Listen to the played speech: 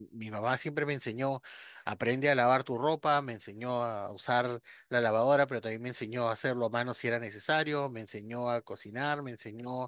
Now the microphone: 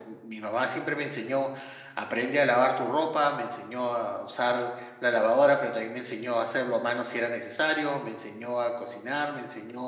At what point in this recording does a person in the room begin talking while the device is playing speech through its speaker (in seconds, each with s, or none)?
none